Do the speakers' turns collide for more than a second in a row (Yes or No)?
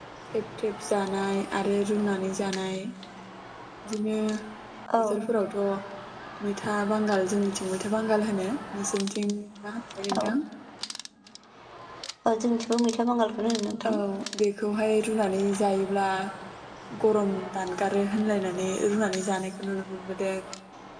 No